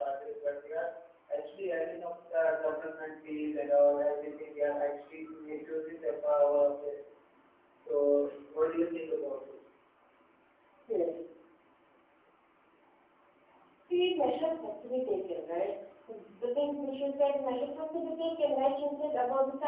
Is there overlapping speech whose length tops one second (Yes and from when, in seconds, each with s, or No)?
No